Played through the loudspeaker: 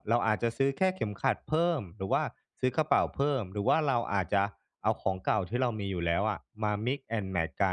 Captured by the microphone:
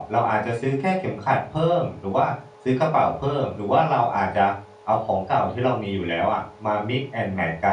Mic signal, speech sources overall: echo only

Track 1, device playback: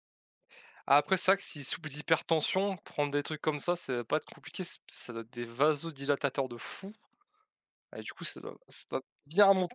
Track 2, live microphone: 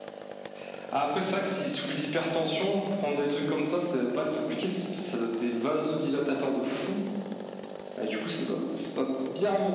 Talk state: echo only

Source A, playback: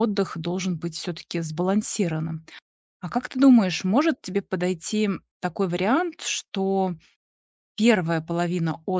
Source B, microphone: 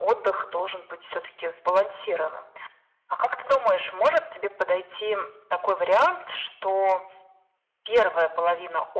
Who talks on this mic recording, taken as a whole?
echo only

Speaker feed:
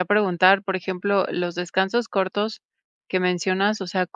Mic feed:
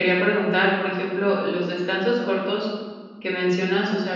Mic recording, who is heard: echo only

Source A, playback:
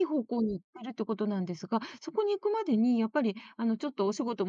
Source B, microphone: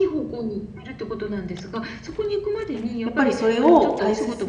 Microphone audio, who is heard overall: both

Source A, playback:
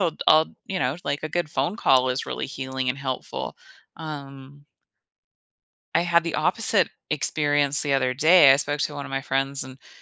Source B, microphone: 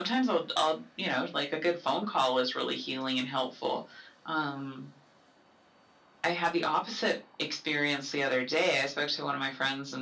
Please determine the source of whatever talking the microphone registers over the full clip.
echo only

